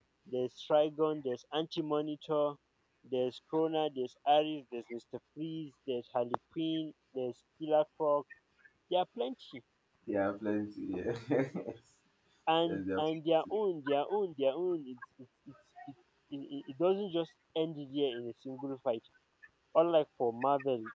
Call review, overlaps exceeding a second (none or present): none